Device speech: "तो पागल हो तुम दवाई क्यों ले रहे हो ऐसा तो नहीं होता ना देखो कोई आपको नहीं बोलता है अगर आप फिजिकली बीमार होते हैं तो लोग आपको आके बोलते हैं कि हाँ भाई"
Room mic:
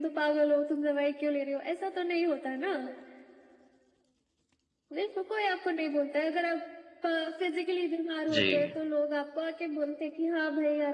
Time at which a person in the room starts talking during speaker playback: 8.3 s

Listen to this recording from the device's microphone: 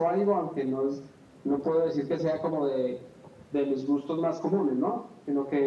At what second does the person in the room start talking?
none

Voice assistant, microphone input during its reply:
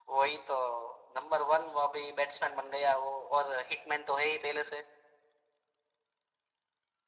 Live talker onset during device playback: none

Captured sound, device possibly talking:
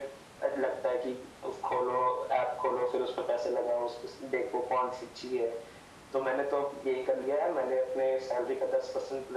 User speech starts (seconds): none

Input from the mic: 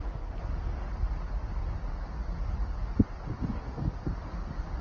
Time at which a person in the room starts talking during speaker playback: none

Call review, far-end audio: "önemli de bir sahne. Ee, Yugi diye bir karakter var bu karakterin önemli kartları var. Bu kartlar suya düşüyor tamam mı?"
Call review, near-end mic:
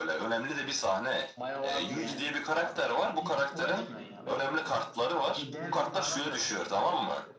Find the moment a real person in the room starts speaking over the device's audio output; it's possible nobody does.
1.4 s

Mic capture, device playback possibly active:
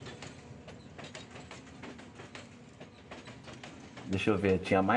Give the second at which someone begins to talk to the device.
4.0 s

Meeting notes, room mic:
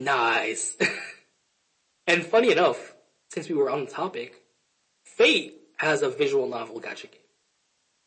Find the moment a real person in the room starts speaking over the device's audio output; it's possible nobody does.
none

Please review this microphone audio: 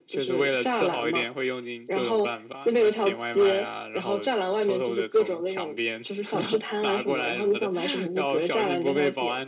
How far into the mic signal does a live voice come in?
none

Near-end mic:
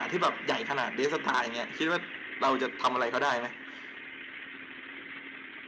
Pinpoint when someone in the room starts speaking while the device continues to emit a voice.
none

